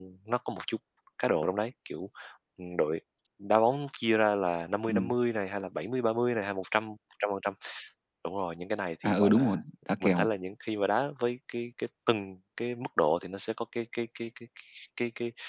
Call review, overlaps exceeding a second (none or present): none